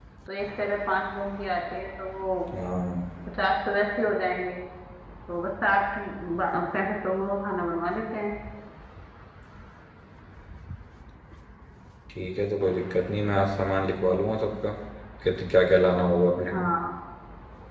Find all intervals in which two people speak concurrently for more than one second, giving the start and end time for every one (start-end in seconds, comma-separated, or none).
none